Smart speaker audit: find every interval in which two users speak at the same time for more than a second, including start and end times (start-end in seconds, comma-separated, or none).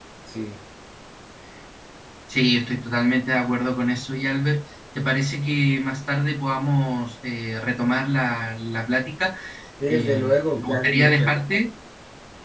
9.9-11.3